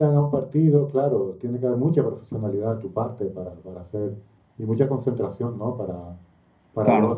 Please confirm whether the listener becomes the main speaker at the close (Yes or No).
No